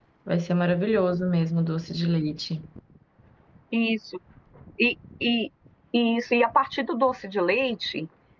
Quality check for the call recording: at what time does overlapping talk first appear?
none

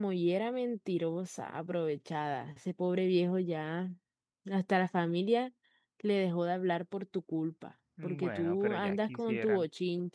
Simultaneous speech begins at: 8.0 s

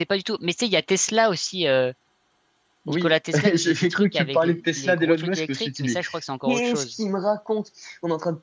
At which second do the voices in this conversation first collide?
2.9 s

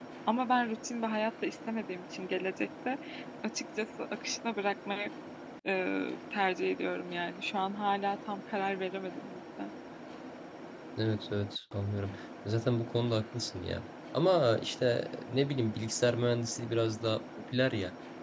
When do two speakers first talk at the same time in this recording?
none

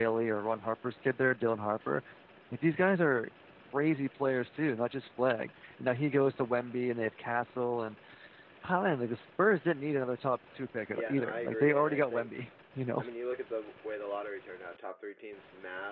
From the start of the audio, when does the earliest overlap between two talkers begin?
11.0 s

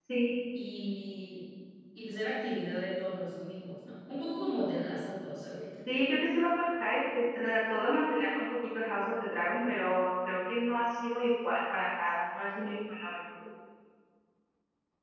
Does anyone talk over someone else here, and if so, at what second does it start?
none

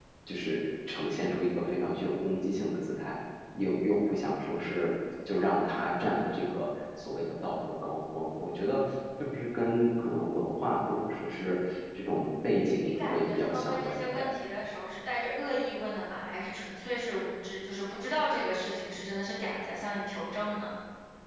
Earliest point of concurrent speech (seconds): 12.7 s

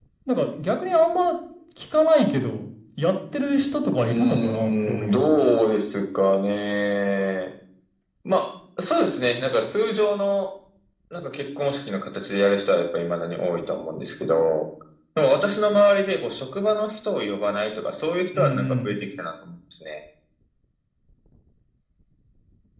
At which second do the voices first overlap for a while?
4.0 s

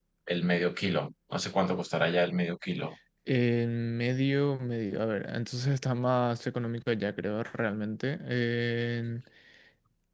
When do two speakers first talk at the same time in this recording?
none

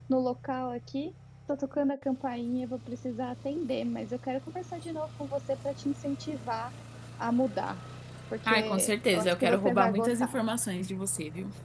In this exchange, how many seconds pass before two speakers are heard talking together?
8.5 s

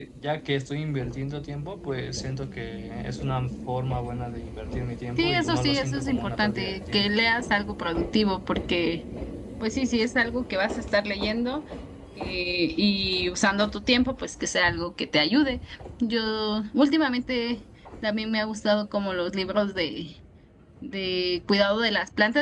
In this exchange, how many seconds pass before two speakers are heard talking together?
5.2 s

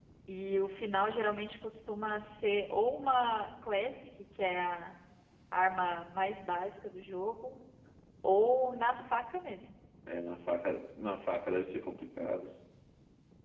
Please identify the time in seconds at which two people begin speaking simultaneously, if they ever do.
none

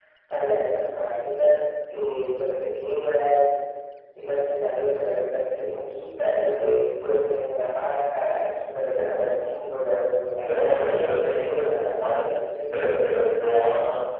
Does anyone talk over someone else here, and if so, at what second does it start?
10.3 s

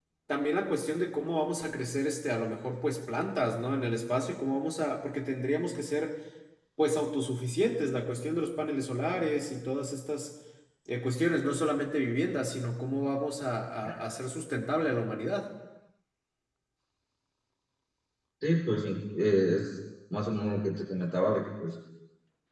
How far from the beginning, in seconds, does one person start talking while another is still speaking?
none

